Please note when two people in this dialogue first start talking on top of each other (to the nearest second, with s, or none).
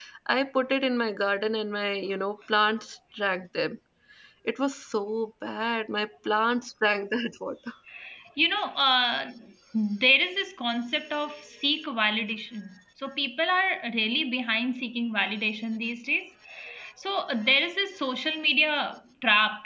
none